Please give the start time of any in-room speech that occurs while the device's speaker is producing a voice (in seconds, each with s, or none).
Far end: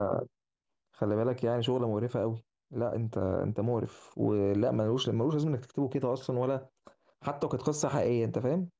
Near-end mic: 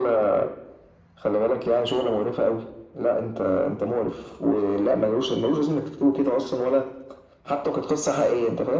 none